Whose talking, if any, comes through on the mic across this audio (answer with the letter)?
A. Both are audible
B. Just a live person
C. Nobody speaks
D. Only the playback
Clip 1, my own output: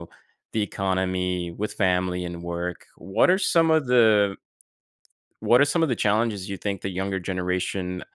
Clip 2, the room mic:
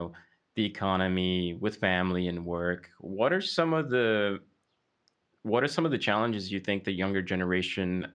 D